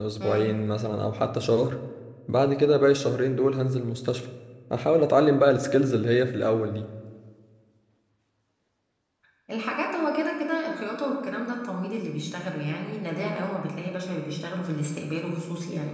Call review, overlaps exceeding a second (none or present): none